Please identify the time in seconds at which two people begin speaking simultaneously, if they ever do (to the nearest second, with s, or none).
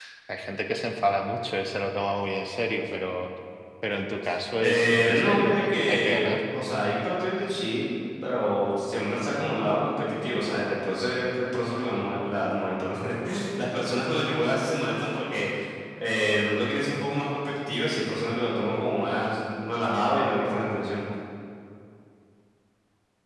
5 s